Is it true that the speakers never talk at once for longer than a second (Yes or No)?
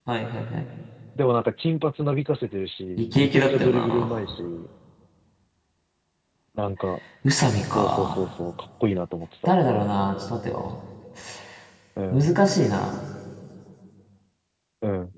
No